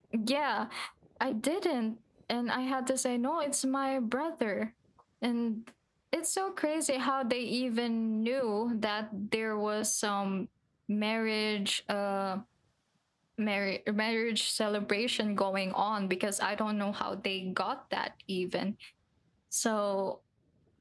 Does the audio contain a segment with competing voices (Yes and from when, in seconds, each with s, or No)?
No